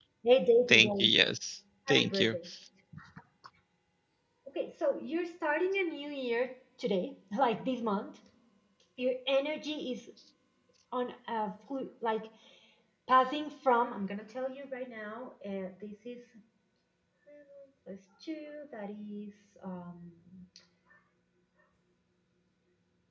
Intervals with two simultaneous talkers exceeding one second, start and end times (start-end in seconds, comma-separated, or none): none